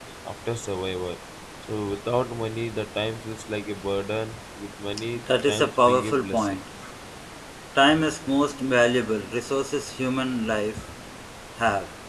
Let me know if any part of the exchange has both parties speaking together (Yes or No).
Yes